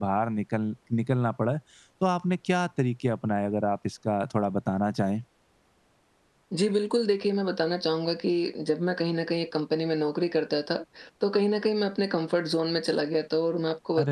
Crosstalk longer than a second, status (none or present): none